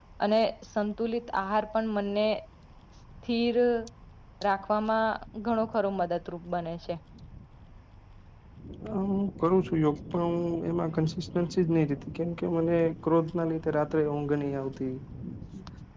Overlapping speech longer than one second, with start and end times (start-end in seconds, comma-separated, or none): none